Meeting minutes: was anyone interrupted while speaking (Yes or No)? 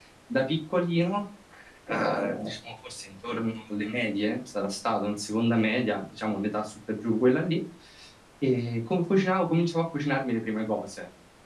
No